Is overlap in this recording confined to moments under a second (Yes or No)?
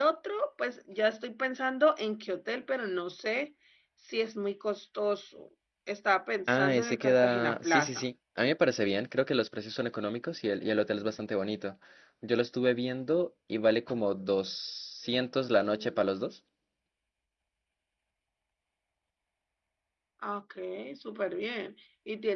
No